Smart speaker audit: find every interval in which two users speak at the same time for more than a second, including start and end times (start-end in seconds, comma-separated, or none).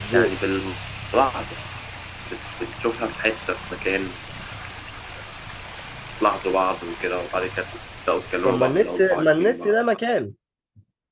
8.4-9.7